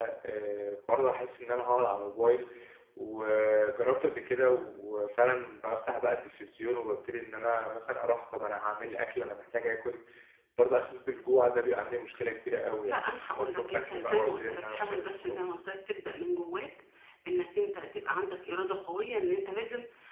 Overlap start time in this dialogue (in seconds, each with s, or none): 12.8 s